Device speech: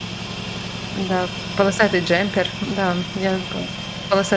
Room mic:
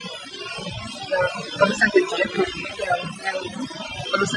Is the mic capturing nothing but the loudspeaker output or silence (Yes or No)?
Yes